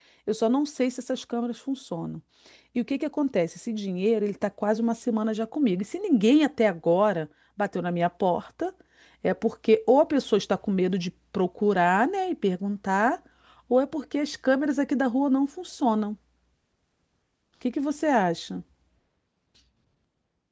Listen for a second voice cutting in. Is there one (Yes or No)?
No